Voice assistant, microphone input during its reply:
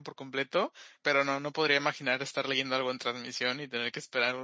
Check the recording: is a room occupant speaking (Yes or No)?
Yes